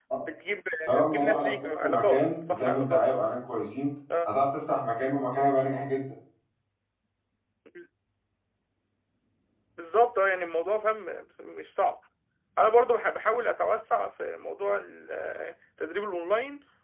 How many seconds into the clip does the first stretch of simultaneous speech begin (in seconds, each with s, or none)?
1.0 s